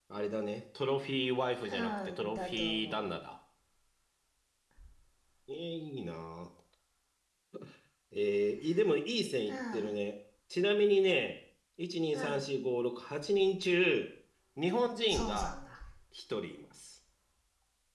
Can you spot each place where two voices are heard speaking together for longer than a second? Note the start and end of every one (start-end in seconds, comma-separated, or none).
1.7-3.2